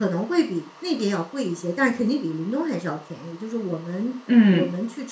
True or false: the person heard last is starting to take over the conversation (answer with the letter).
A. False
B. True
A